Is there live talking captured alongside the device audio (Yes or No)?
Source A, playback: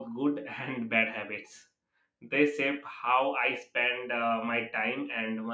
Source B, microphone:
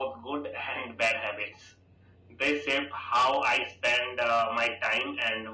No